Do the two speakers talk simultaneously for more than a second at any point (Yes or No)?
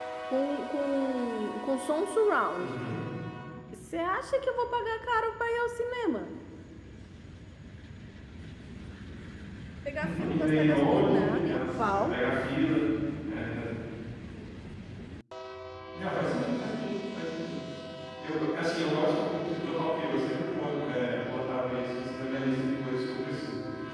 Yes